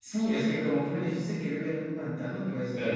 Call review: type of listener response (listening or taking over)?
listening